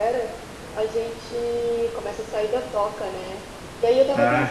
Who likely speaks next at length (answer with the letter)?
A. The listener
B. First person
B